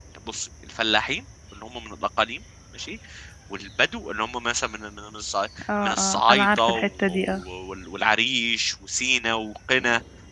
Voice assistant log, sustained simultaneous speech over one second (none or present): present